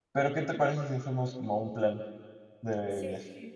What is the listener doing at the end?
taking over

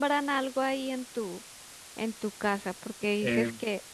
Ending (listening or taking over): listening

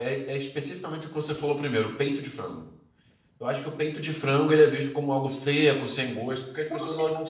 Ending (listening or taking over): taking over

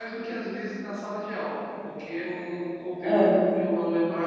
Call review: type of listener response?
listening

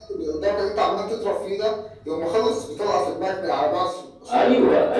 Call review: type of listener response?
taking over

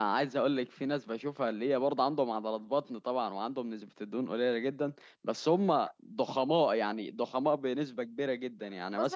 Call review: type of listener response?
taking over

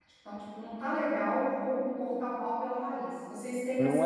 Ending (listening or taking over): taking over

